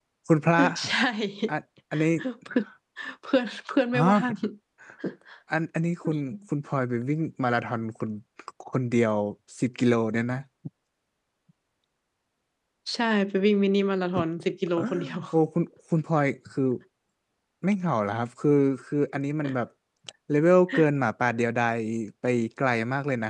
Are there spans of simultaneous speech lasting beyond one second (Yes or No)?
No